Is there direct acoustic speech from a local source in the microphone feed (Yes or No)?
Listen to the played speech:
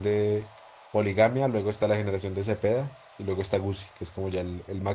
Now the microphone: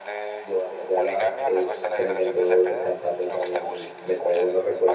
Yes